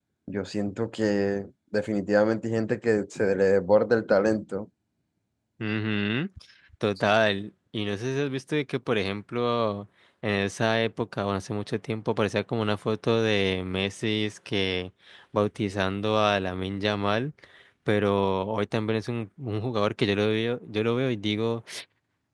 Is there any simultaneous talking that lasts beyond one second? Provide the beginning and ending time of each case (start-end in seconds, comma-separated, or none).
none